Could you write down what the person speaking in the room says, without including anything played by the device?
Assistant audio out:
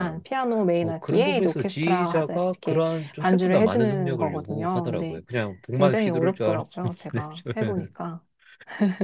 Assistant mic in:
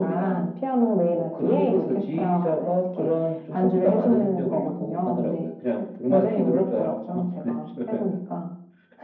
none

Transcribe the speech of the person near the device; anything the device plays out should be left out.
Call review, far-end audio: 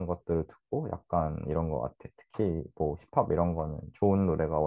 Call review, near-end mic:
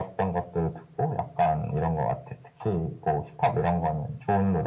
none

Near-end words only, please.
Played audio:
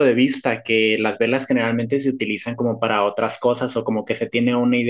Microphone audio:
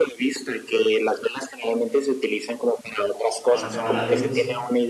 Cuando se va la luz.

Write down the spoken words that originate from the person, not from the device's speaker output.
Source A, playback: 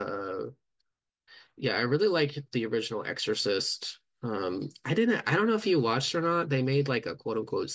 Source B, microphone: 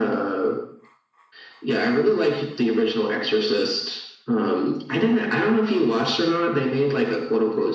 none

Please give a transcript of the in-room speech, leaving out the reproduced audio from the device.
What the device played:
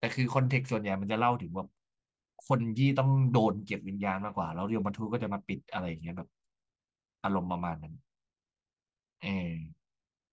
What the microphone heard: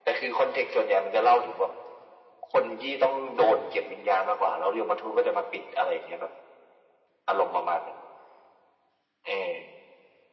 none

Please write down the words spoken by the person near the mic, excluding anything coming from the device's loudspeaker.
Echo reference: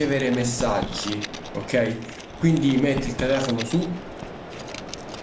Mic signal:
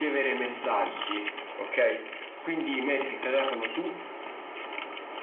none

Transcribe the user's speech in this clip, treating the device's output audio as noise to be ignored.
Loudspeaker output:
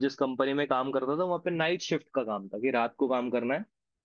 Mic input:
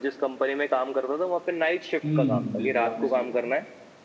हम्म हम्म बिल्कुल आपने सही कहा

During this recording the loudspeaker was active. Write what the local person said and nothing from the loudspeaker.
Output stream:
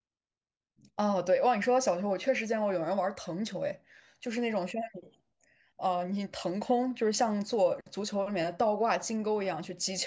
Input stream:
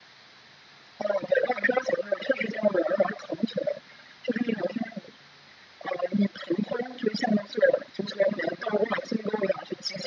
none

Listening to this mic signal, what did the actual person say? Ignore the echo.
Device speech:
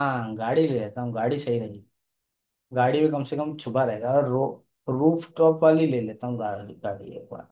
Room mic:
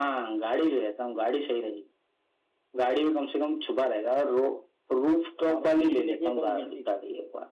आपने बिजली देखी है कभी बिजली

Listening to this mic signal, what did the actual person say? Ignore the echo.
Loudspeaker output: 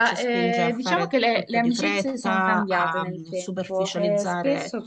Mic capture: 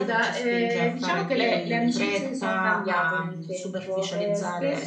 ehm,

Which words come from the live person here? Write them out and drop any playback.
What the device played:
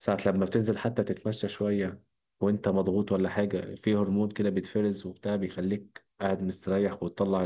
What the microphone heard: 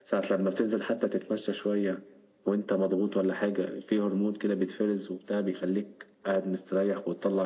none

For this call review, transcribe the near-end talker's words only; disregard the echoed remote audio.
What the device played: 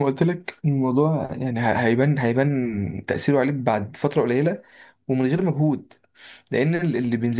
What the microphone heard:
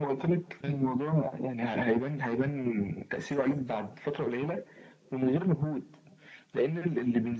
حلو

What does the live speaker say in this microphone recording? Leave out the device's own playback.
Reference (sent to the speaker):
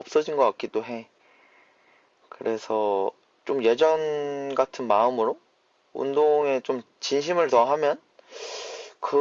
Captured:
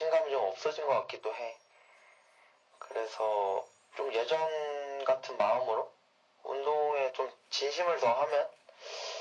none

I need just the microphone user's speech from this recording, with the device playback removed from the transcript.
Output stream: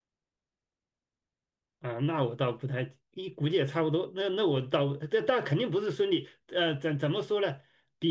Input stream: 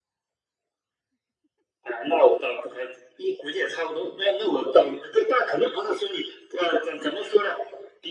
none

